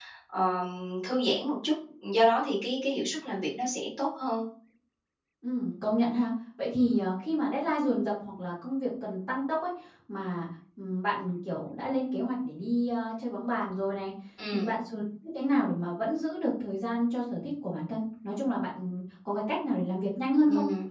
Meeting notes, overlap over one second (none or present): none